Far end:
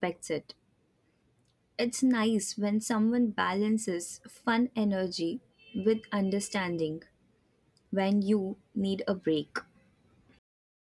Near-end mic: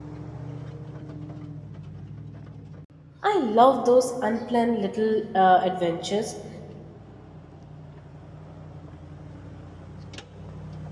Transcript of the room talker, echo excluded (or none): I love those unplanned little uh, adventures,